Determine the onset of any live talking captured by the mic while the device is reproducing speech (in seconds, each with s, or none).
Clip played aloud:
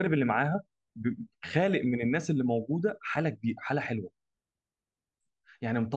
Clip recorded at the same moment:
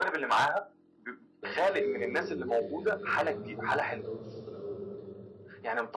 1.4 s